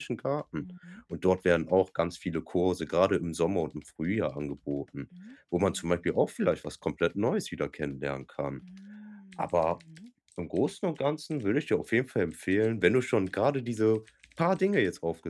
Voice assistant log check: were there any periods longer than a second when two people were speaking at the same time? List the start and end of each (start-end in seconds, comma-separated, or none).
none